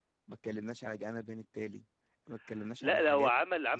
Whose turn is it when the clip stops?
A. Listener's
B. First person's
A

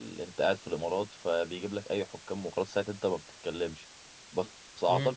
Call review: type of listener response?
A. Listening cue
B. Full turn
A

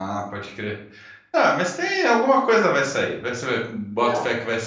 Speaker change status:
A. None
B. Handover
A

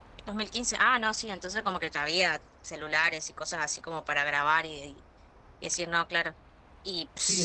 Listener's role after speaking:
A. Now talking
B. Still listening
A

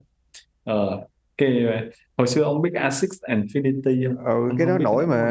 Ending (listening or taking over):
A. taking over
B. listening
A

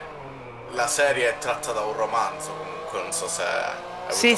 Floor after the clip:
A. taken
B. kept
A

